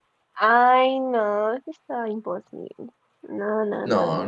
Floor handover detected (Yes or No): Yes